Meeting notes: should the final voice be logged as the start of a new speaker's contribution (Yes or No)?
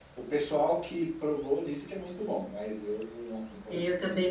Yes